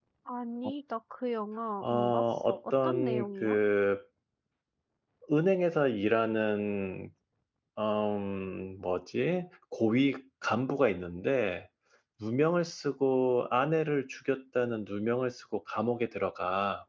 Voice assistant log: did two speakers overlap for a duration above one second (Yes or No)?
Yes